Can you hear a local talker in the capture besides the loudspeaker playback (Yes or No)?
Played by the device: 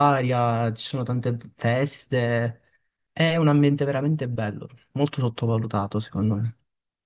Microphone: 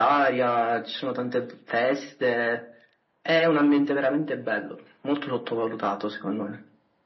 No